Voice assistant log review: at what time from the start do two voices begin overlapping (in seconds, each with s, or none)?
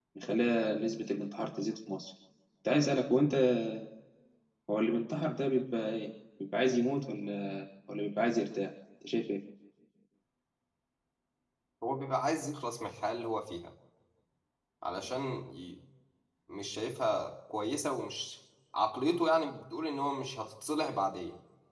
none